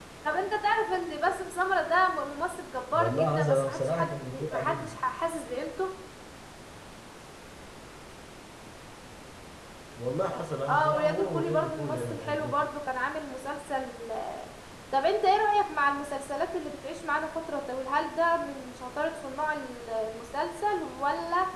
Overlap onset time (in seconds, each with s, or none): 2.9 s